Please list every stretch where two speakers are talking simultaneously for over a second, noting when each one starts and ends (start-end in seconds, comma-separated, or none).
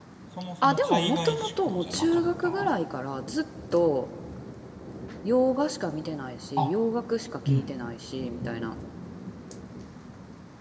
0.6-2.7